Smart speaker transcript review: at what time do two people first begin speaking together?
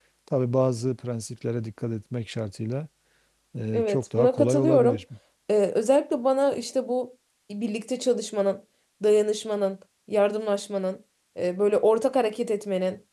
3.7 s

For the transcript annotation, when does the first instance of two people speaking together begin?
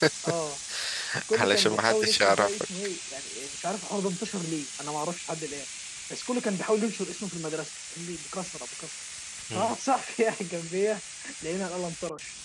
1.3 s

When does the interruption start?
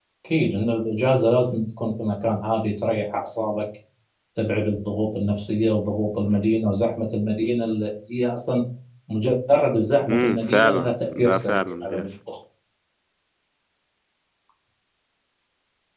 10.0 s

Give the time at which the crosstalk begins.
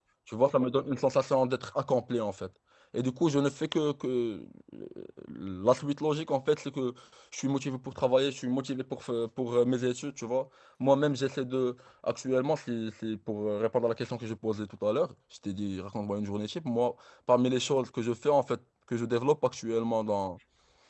none

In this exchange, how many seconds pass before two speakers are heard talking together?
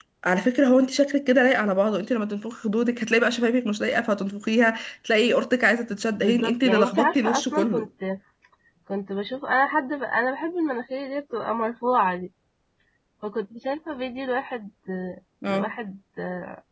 5.9 s

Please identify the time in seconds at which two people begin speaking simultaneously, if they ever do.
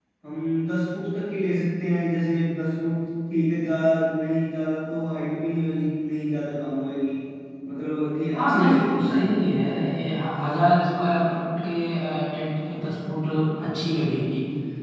8.3 s

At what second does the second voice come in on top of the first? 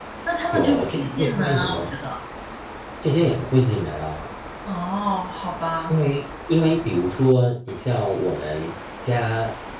0.5 s

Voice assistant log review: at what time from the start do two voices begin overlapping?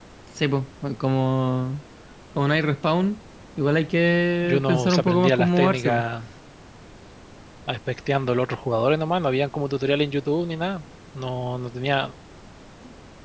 4.4 s

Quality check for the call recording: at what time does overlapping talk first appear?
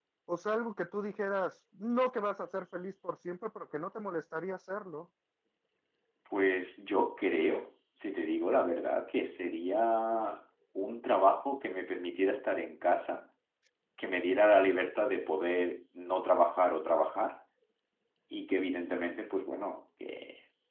none

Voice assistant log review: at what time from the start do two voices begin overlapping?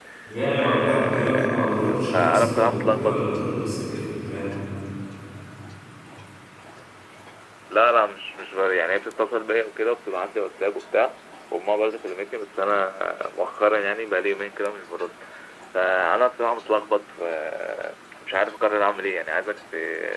0.5 s

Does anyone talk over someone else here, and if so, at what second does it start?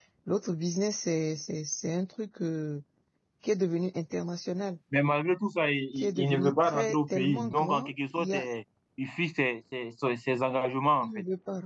6.0 s

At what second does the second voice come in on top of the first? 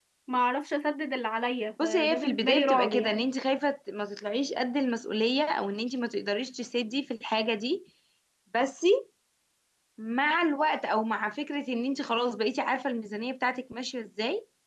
1.8 s

